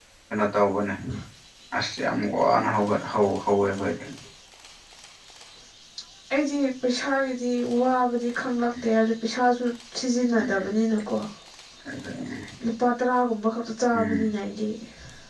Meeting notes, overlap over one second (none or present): none